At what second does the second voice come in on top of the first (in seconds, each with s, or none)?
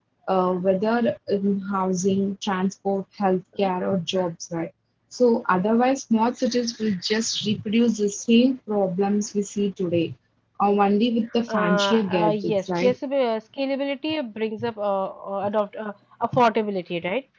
11.5 s